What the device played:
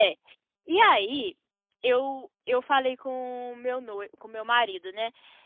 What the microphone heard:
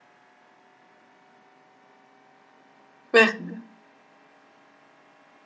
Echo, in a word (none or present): none